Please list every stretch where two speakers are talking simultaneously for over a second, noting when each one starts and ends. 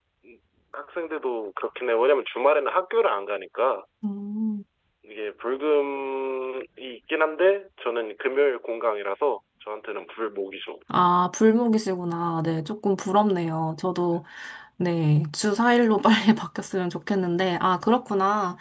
none

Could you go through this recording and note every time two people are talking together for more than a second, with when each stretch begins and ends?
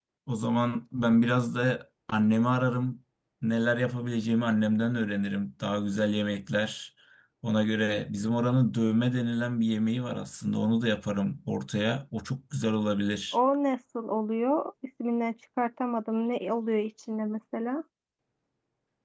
none

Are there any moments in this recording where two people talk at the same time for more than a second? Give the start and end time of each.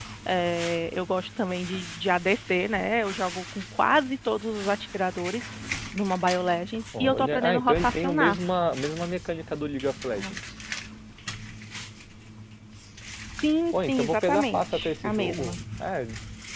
7.0-8.4, 13.7-15.6

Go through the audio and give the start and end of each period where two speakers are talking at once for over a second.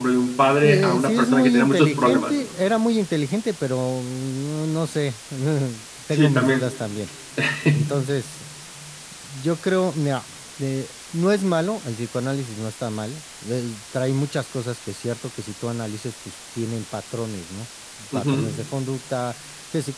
0.6-2.3

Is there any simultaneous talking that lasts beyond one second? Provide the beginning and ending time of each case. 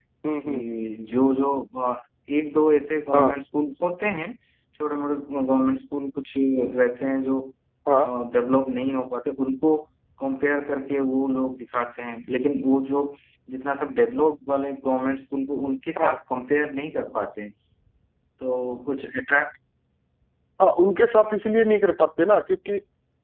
none

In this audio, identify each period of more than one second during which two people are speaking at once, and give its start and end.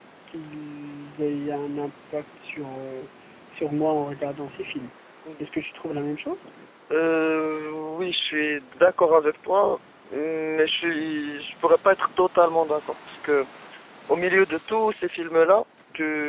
none

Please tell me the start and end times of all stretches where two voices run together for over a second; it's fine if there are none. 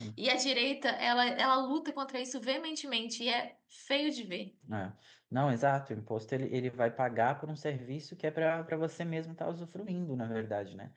none

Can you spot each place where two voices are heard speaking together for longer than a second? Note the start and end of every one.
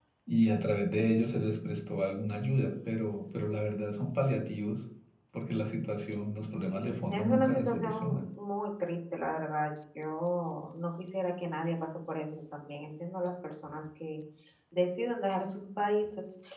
6.5-8.3

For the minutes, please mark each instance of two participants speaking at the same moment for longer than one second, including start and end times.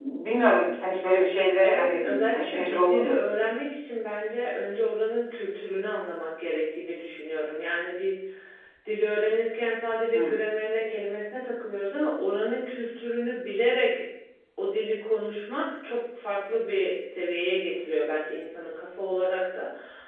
1.6-3.2

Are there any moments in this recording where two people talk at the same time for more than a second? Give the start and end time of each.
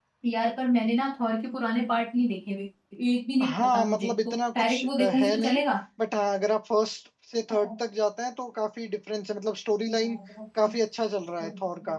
3.5-5.6

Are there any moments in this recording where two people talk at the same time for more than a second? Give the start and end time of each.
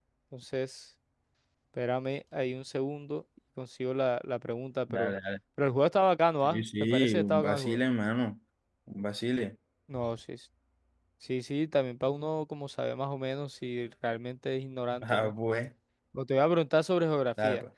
6.4-7.8

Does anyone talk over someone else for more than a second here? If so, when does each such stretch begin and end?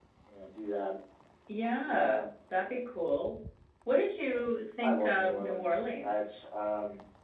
4.8-6.3

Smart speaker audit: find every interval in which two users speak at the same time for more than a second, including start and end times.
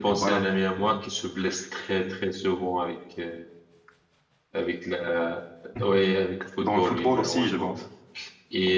6.6-7.8

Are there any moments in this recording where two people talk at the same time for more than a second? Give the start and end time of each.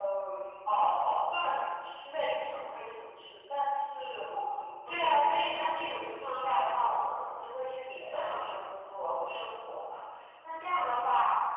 4.9-7.0

